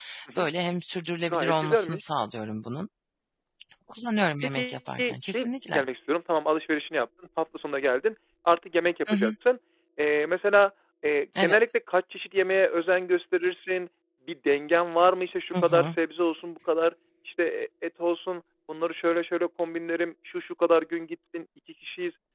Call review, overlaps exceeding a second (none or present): present